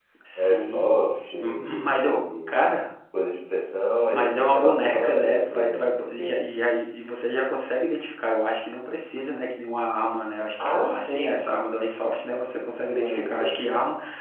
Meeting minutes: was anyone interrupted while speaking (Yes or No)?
Yes